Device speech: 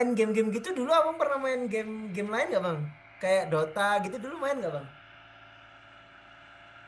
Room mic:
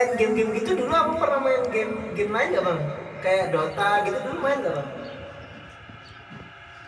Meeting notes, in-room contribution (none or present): none